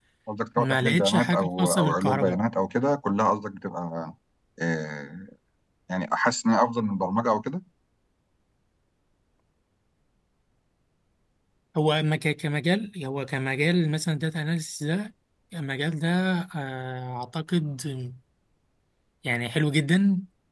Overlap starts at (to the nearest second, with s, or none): 1 s